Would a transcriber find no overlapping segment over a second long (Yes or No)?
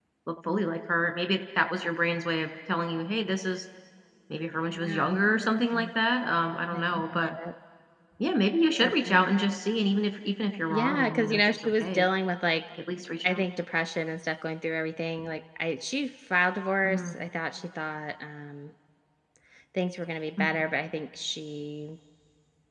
No